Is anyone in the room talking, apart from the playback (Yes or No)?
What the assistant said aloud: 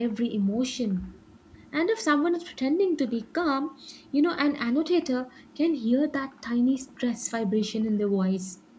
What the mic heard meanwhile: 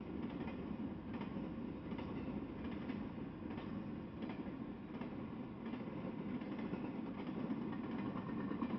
No